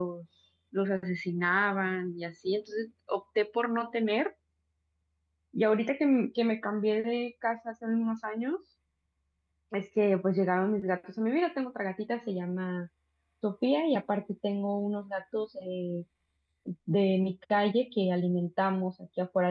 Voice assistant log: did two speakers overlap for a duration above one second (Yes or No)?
No